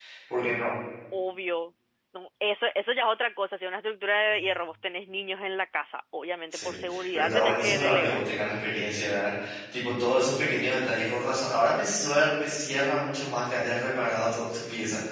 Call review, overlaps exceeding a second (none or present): present